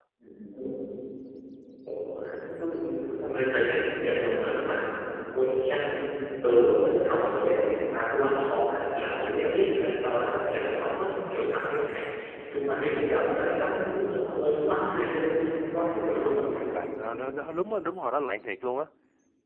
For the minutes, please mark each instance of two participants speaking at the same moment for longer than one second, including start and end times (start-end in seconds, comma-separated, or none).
none